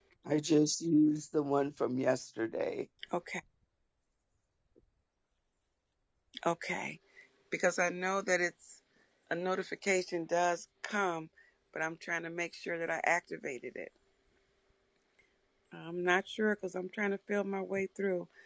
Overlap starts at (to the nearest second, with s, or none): none